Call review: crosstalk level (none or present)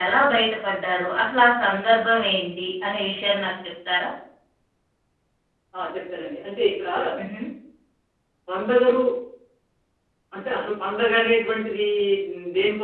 none